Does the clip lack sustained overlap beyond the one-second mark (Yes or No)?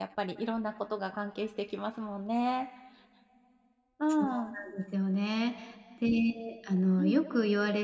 Yes